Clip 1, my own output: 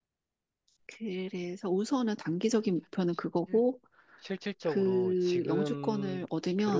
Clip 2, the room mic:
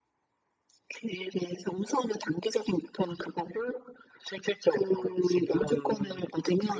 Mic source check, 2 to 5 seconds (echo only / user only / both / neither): echo only